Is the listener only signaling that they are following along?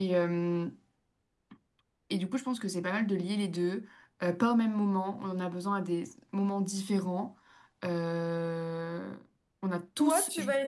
No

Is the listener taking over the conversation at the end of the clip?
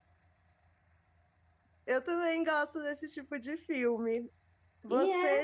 No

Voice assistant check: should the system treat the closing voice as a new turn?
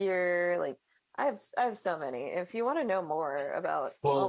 Yes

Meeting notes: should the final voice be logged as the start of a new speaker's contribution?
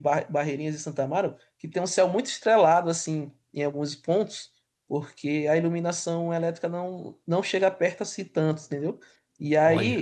No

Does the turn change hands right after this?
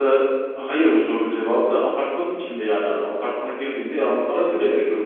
Yes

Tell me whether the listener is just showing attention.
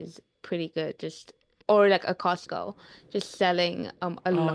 Yes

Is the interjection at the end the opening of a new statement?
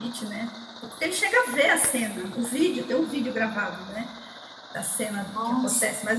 No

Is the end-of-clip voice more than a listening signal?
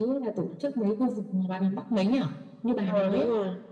Yes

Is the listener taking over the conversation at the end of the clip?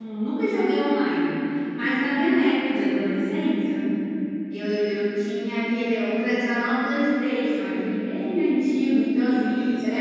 No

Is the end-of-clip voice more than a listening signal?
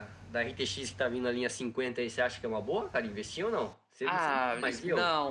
Yes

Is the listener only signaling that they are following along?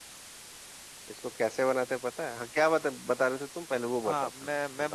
No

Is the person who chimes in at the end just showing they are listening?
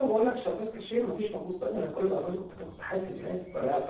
Yes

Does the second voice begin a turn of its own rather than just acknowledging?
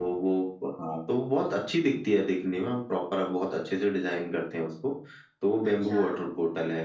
No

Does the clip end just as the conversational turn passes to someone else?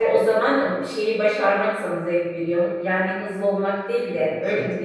Yes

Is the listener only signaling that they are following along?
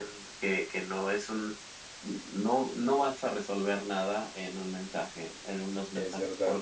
Yes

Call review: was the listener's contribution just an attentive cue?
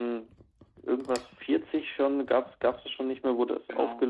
Yes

